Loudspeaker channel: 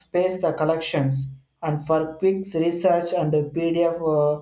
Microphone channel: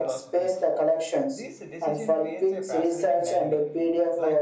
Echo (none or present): present